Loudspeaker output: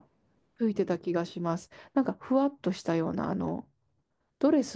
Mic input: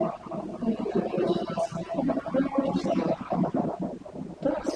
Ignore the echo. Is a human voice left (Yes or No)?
No